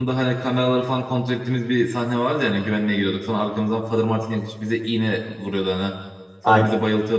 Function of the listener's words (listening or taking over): listening